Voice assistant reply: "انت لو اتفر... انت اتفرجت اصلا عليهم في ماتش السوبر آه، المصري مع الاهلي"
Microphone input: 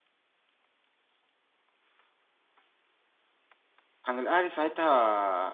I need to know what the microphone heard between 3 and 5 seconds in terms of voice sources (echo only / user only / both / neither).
user only